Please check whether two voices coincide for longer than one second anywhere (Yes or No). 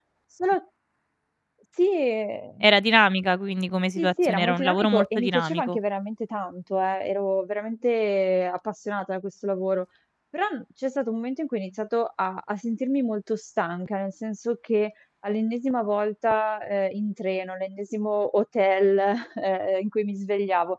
Yes